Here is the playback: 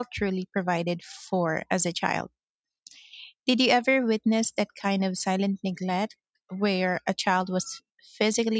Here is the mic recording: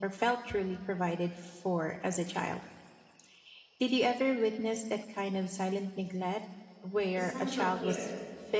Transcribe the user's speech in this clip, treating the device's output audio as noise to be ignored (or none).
essential care.